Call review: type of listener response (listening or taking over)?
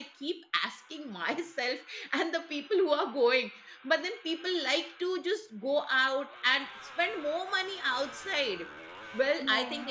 listening